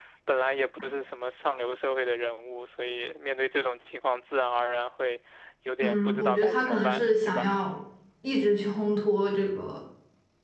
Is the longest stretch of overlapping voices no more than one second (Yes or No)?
No